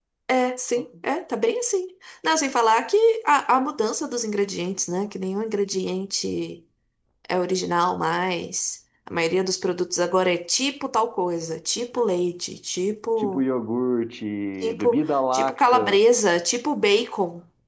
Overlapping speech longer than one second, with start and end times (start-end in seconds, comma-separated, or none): 14.6-16.0